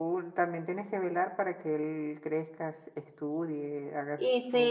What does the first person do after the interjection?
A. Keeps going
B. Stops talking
B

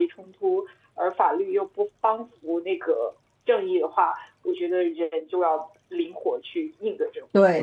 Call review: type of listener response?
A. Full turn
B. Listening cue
A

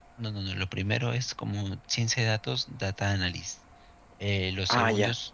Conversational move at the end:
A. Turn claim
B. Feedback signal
B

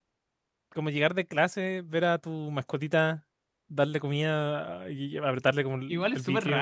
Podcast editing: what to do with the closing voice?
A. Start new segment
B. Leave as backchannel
A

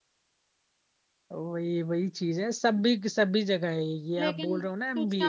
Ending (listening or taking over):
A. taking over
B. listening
A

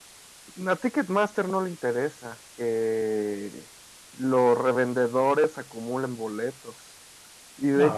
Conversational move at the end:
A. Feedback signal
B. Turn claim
A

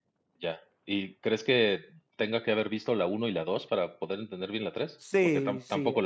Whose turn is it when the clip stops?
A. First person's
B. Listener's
B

